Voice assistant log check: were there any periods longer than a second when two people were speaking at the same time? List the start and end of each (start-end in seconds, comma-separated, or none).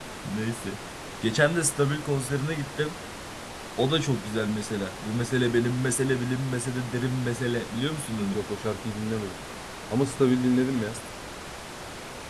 none